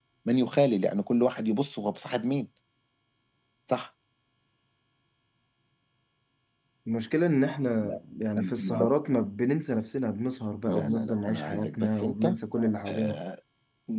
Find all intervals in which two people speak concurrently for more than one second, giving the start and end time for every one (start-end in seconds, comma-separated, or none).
10.7-12.4